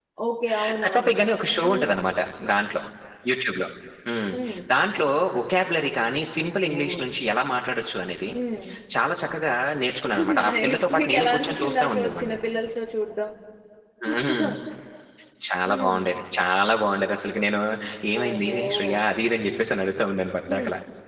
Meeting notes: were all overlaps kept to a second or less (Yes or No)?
No